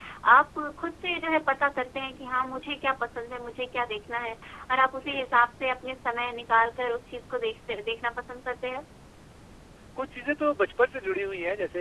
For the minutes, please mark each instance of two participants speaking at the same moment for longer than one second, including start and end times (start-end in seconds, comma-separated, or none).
none